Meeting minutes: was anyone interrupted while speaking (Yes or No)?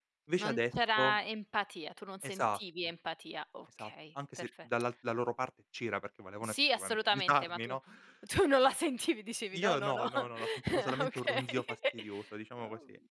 Yes